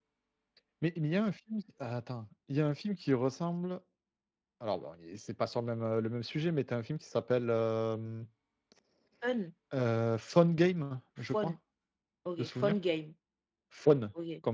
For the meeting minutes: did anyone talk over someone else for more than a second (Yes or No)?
No